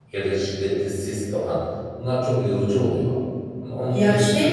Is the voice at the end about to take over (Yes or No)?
Yes